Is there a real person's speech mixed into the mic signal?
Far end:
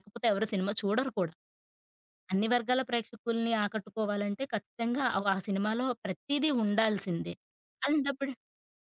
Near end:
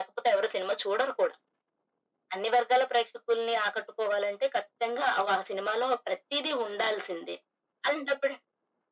No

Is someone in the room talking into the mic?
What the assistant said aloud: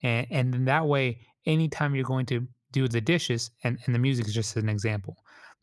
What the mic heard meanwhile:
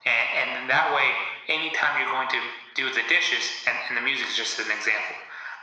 No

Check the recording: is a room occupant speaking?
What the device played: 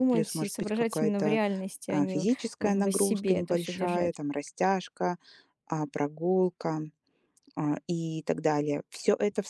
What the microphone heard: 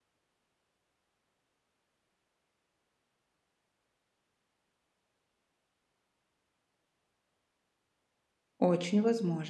Yes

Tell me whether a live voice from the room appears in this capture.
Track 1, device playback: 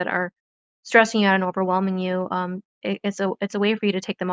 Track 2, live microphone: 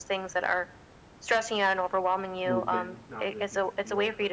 Yes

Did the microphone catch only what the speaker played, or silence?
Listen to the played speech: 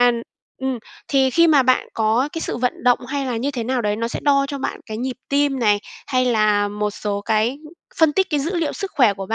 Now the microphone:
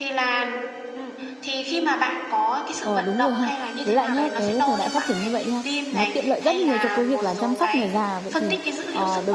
No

